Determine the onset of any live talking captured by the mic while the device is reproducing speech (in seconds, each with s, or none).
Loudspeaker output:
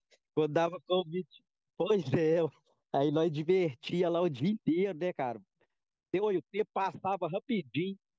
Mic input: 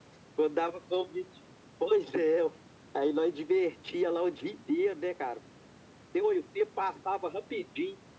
none